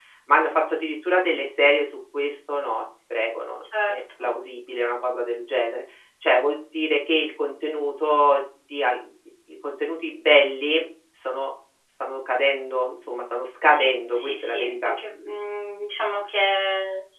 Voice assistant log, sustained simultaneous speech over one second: present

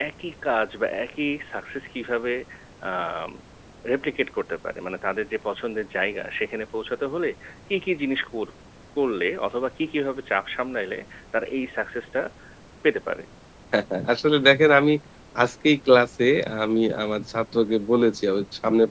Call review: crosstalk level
none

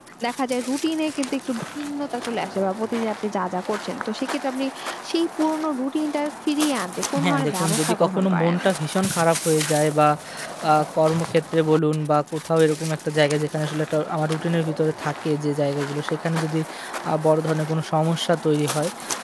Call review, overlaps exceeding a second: present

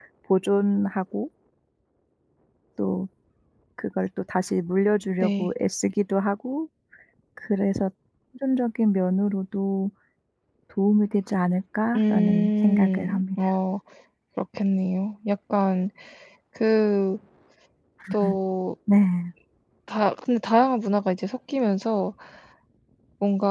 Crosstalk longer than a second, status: present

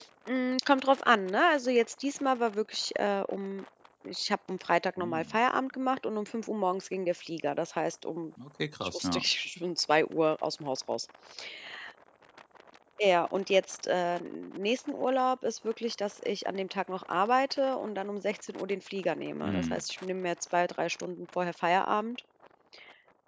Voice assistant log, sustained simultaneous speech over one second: none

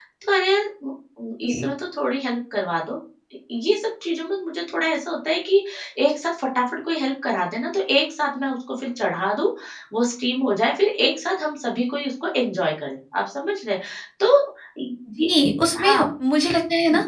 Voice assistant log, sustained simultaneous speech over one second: none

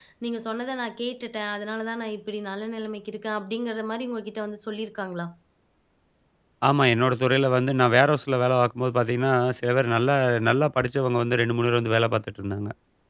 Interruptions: none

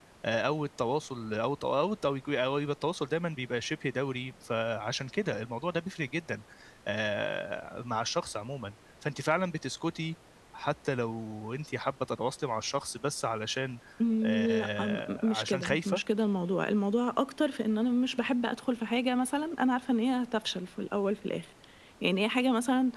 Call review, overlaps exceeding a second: present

